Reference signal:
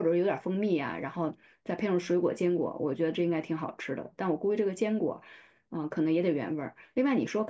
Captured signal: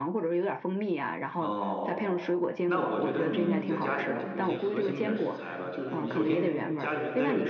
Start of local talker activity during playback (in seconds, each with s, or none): 1.4 s